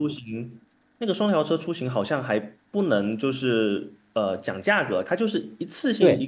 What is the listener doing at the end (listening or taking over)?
taking over